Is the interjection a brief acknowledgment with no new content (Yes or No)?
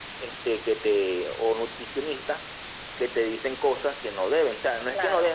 Yes